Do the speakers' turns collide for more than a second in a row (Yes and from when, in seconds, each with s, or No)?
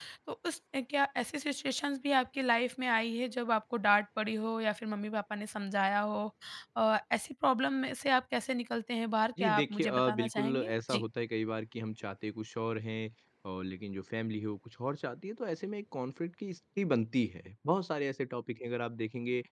Yes, from 9.4 s